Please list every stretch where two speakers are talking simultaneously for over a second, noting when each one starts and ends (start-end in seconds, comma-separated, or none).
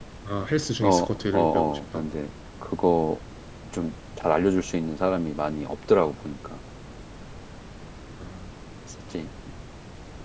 0.8-2.0